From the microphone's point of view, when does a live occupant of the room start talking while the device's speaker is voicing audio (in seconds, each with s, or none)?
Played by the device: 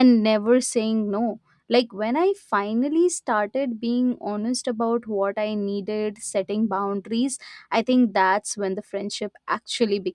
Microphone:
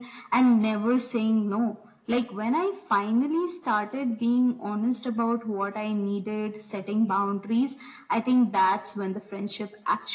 none